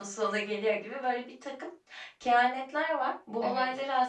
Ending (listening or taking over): listening